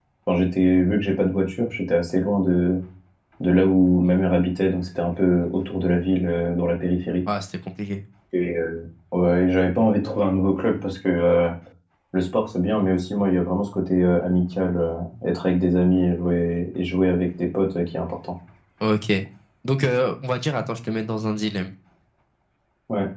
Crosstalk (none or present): none